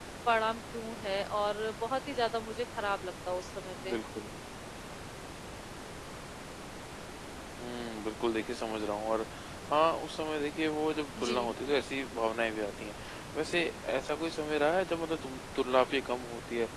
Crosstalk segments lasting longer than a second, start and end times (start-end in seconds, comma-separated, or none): none